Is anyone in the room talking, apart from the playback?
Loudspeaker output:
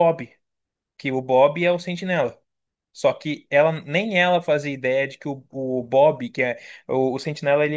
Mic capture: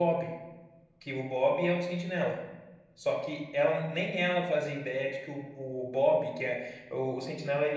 No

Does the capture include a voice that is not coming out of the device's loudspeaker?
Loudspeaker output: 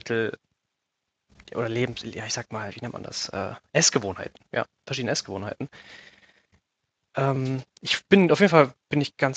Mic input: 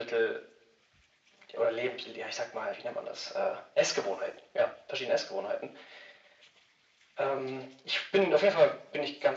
No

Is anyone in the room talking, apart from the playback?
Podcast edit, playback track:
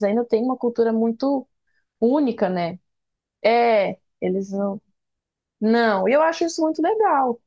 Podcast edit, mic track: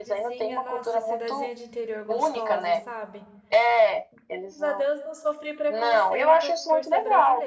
Yes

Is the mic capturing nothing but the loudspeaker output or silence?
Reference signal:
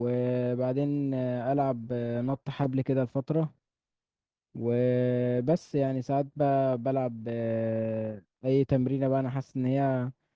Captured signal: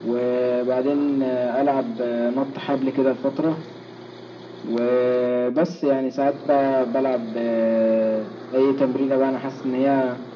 Yes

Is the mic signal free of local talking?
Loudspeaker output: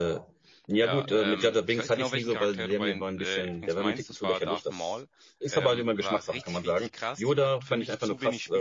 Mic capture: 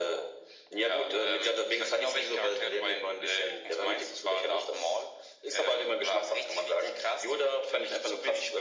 Yes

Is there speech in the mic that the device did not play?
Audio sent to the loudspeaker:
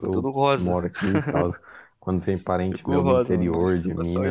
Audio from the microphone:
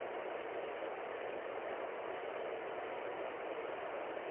No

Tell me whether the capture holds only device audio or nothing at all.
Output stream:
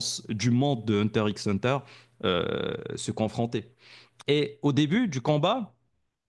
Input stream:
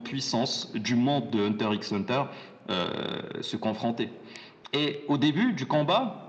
Yes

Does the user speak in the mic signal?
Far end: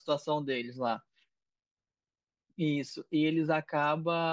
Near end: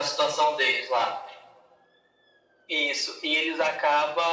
No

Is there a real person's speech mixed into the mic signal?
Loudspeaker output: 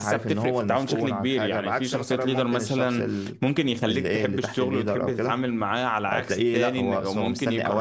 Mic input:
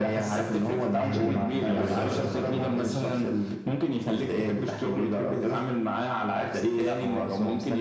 Yes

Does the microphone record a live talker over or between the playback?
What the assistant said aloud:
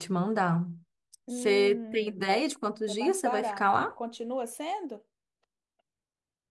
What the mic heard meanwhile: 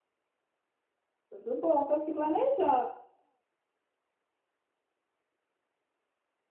Yes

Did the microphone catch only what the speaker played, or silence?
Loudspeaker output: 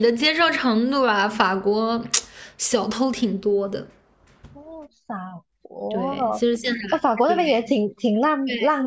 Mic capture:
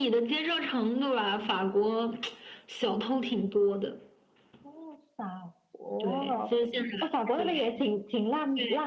Yes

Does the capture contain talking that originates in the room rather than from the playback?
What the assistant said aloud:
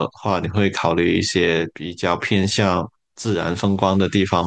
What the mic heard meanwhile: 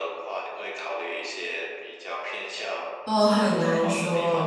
Yes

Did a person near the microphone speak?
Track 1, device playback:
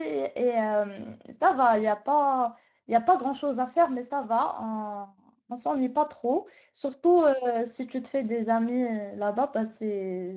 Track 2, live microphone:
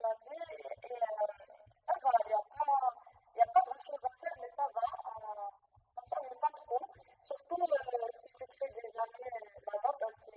No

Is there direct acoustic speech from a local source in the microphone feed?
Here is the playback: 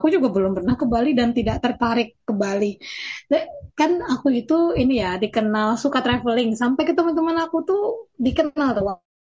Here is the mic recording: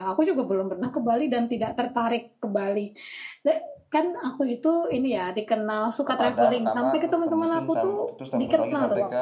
Yes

